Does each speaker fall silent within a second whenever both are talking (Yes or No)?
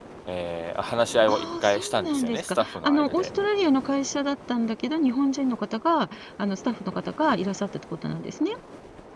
No